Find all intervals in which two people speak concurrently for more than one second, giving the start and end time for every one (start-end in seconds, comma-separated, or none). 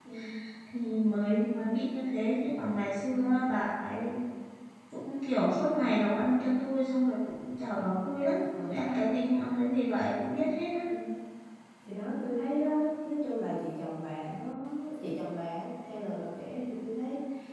none